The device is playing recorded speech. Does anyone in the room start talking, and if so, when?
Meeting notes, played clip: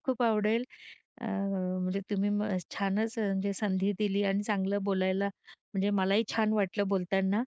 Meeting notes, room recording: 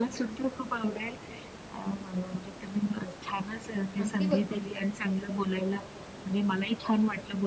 4.0 s

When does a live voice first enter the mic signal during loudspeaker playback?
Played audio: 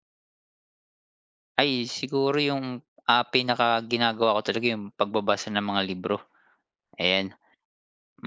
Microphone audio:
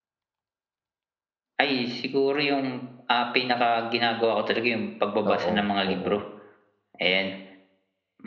5.3 s

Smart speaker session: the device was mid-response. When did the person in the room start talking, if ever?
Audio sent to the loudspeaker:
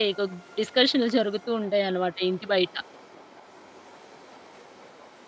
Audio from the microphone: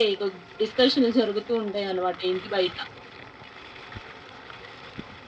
none

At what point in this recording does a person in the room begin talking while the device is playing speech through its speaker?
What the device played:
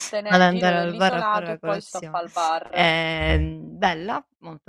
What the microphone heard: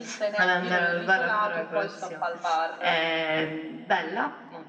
none

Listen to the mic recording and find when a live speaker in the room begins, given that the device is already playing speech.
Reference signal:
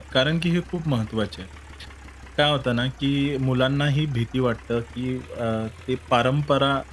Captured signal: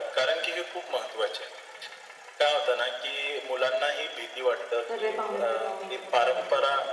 4.9 s

